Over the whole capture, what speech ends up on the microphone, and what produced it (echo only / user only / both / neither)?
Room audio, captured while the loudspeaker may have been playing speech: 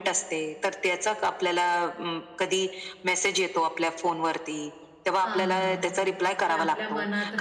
both